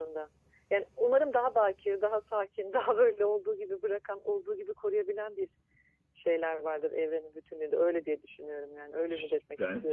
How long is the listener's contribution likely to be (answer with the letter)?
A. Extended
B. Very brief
A